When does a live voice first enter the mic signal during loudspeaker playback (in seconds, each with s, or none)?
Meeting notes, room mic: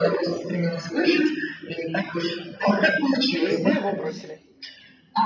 3.4 s